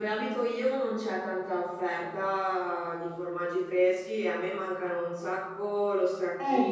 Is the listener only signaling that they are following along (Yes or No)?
Yes